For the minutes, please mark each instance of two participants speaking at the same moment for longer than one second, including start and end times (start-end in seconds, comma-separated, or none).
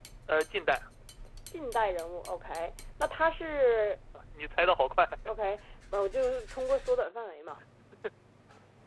none